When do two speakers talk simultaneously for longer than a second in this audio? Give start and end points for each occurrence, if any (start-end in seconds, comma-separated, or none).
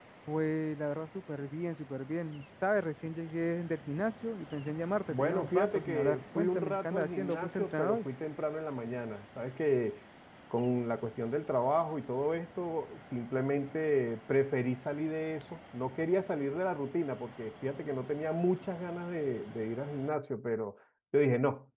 5.1-8.1